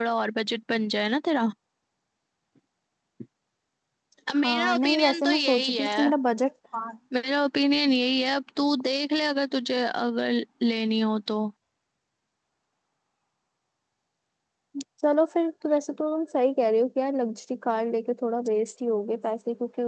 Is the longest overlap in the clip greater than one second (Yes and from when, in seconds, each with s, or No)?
Yes, from 4.4 s